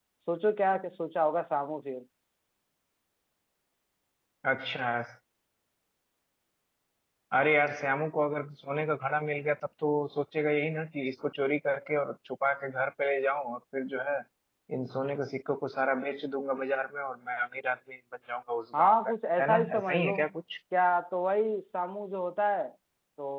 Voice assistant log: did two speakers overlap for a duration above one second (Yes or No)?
Yes